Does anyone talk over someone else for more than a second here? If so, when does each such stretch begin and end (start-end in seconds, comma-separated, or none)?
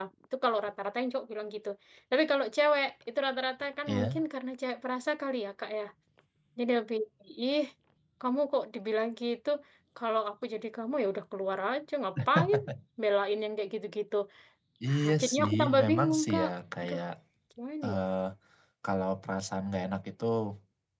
14.9-16.5